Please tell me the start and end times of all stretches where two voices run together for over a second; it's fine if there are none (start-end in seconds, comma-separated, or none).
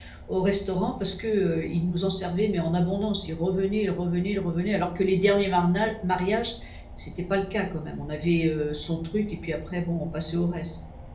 none